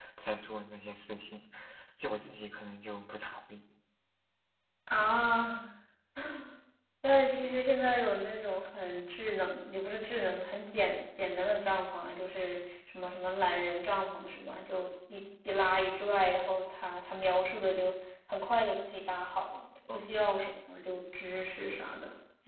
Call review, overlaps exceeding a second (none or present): none